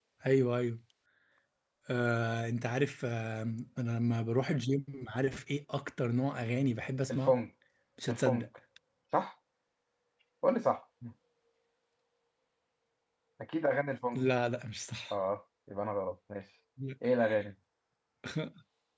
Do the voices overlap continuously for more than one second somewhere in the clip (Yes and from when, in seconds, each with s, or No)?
No